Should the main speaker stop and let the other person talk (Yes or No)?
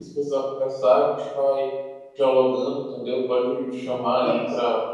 No